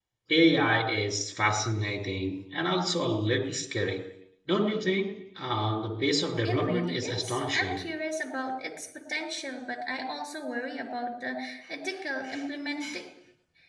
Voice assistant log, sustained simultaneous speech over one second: present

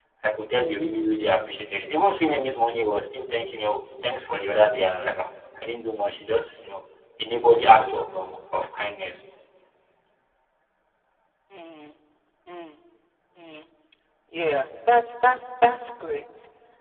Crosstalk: none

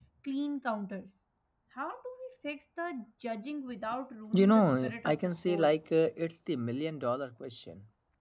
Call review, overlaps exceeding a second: present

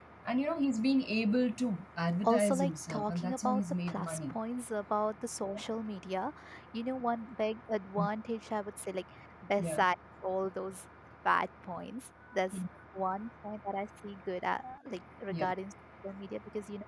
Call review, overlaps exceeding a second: present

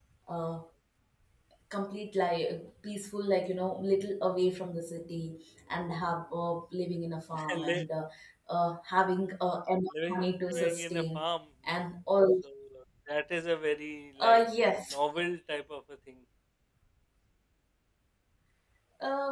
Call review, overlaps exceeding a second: present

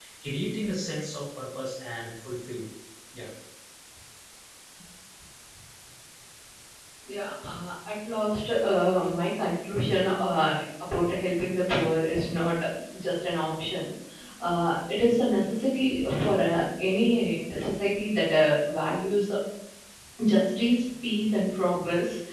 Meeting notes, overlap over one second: none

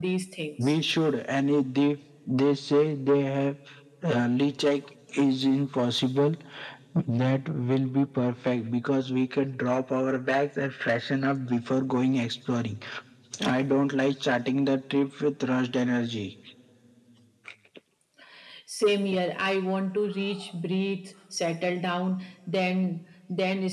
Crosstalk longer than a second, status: none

